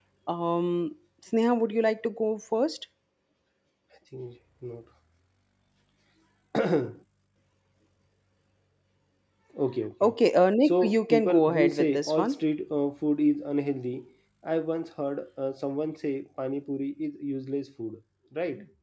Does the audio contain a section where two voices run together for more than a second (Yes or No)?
Yes